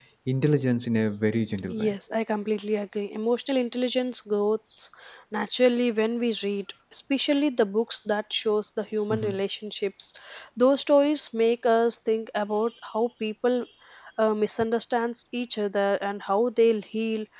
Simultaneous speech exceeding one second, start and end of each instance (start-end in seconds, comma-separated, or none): none